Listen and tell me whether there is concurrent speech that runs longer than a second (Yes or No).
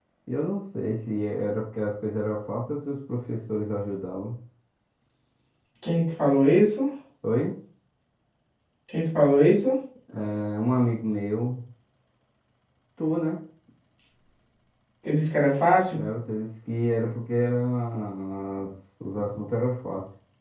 No